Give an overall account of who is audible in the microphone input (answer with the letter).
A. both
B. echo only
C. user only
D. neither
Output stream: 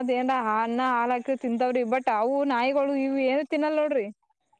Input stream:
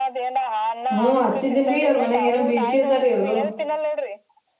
A